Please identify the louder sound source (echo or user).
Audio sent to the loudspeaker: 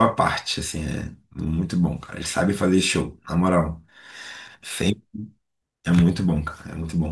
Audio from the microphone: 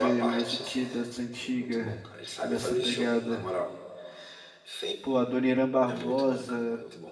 user